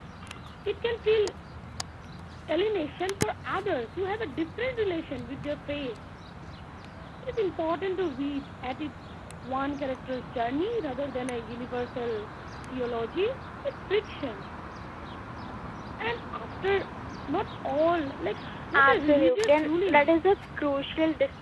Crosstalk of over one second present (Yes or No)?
Yes